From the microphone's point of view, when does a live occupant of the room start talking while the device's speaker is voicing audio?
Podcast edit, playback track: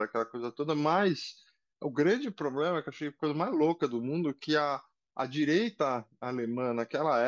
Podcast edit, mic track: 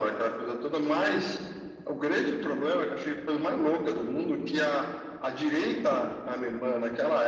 none

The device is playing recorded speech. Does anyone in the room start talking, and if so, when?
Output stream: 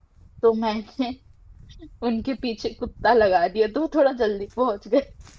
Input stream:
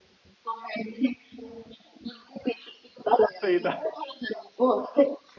3 s

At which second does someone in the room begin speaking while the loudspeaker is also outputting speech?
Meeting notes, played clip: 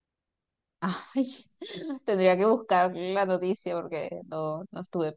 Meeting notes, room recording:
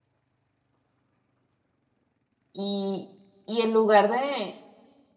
3 s

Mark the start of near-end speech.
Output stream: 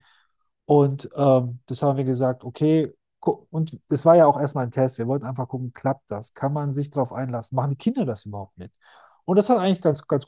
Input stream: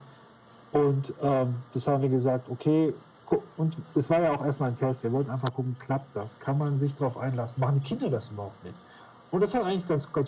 none

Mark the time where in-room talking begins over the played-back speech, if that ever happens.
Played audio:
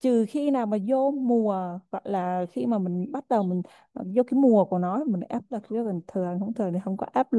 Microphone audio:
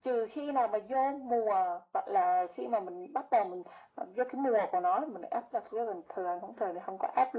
none

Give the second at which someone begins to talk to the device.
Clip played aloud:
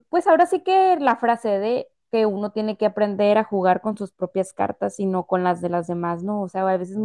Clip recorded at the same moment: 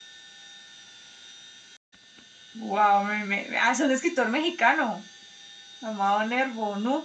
3 s

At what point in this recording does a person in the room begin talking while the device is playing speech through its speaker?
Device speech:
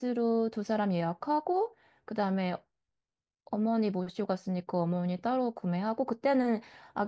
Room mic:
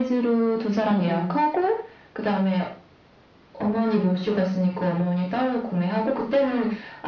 1 s

